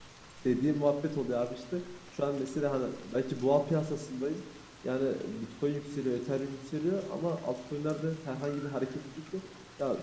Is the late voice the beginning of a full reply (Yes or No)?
No